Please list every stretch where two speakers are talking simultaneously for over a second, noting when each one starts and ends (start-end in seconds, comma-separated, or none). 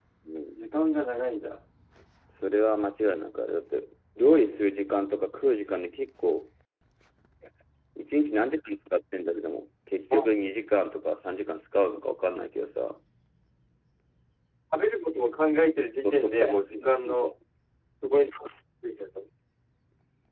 16.0-17.3